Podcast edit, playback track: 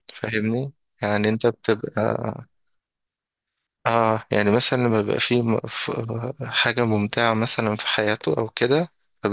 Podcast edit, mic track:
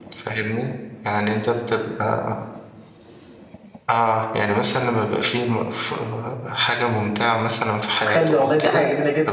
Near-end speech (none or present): present